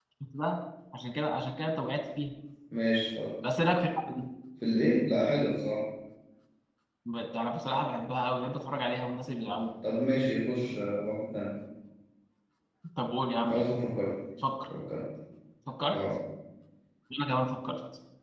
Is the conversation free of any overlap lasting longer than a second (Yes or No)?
Yes